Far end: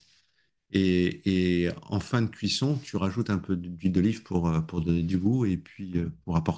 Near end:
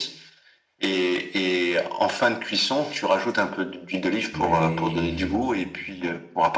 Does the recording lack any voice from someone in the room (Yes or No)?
No